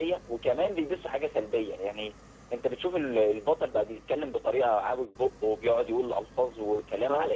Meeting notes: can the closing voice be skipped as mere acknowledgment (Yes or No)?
Yes